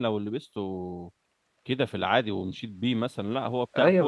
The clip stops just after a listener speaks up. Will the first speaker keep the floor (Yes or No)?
No